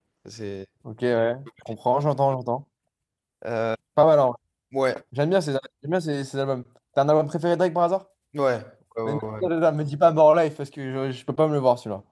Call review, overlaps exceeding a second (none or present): none